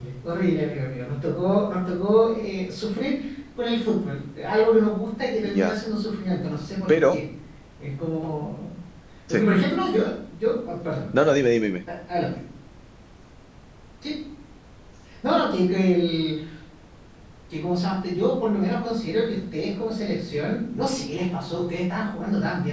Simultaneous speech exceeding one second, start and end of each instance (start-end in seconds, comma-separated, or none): none